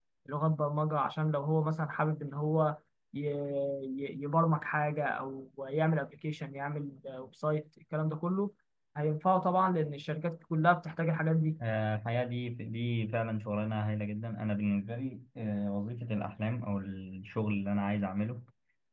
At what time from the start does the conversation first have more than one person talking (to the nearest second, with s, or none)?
none